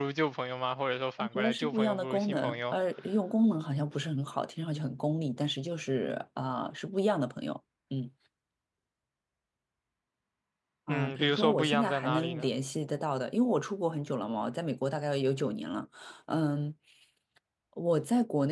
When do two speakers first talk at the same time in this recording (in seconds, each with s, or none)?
1.2 s